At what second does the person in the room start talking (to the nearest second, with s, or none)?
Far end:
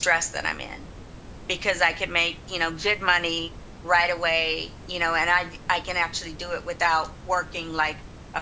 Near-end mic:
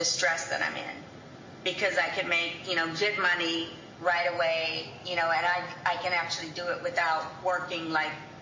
none